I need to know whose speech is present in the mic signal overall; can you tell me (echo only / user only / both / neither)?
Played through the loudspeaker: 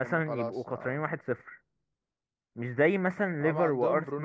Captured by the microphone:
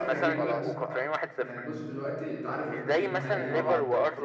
both